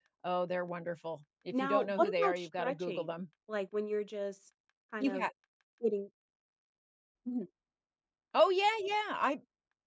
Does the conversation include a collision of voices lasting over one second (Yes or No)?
Yes